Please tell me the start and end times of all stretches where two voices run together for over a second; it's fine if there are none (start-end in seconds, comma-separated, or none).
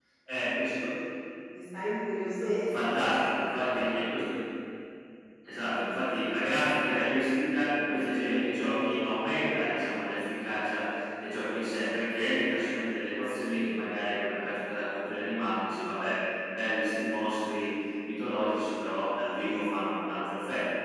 none